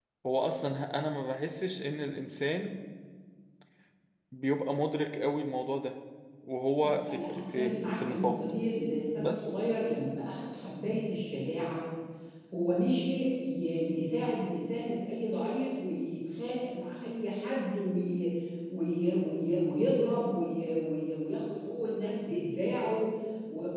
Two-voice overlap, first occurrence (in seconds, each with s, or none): 7.1 s